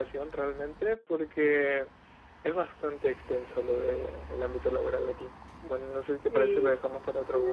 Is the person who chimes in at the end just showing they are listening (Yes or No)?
No